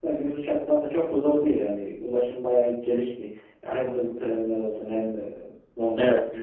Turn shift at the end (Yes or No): No